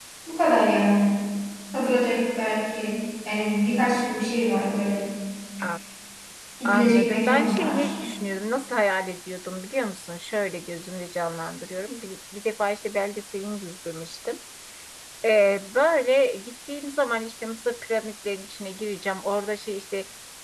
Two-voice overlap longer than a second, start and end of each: 6.7-7.9

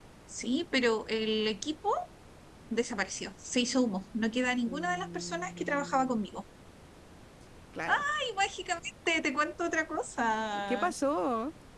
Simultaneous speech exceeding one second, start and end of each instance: 4.7-6.2

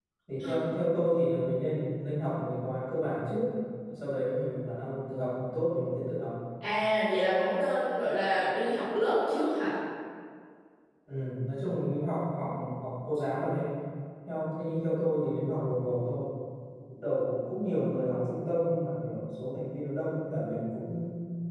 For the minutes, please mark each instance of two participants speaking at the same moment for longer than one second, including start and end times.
none

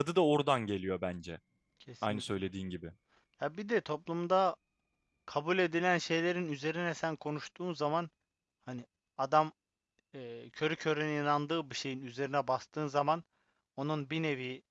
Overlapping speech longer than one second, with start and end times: none

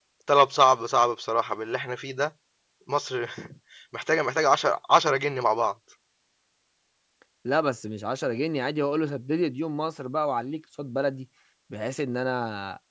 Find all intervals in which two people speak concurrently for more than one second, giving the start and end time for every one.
none

